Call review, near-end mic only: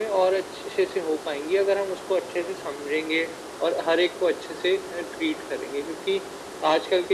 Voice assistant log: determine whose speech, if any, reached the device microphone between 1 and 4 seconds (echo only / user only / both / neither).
echo only